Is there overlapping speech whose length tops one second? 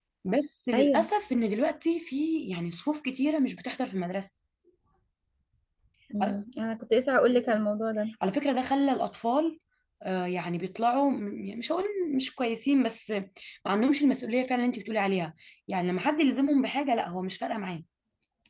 No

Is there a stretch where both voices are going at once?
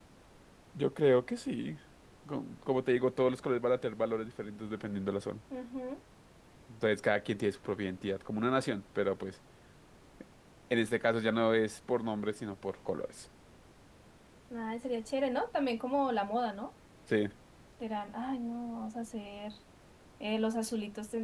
No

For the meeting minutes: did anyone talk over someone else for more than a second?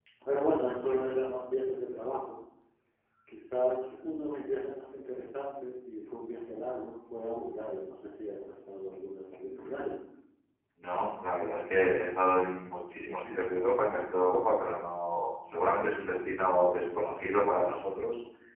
No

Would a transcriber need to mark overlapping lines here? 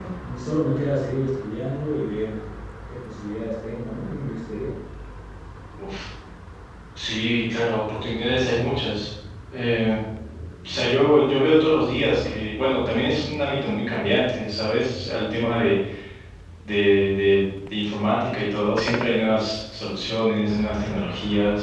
No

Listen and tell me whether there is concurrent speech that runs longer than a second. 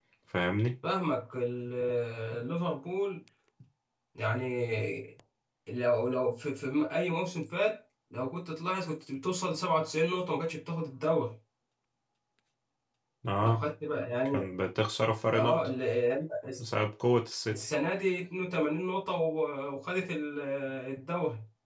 No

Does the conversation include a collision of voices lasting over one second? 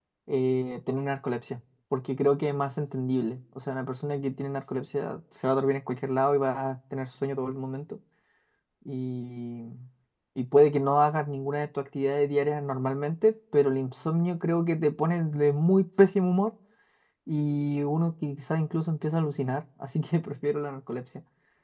No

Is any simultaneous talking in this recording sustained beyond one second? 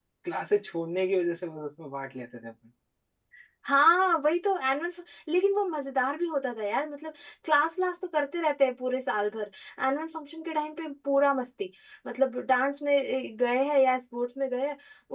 No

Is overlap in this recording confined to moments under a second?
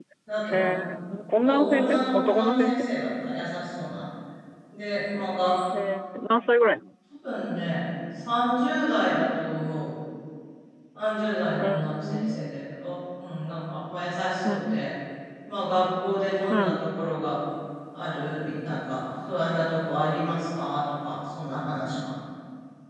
No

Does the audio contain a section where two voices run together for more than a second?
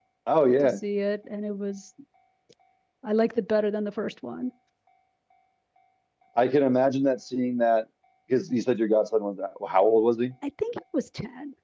No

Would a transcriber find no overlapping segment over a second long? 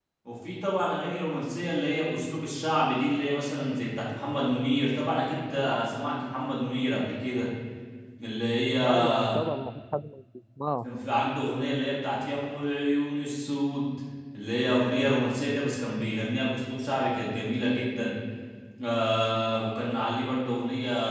Yes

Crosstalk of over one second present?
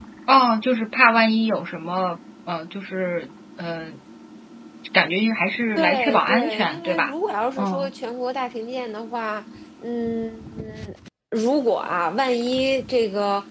Yes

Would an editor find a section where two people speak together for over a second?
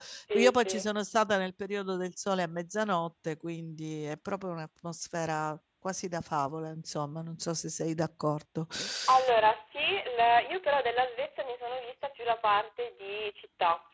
No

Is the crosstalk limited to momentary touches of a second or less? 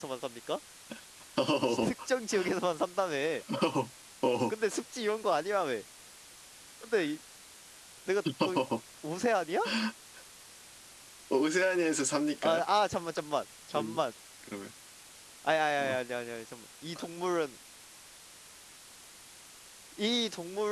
Yes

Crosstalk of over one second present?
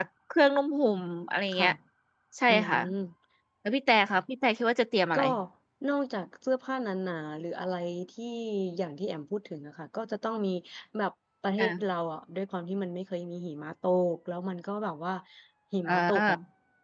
No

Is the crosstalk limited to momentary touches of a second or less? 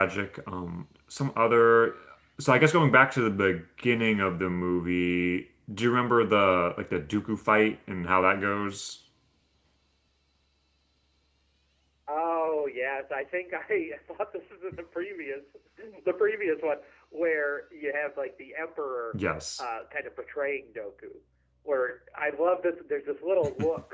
Yes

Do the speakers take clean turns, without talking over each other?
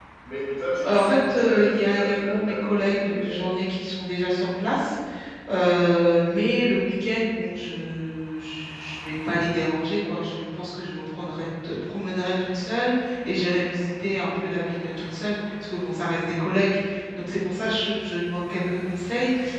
No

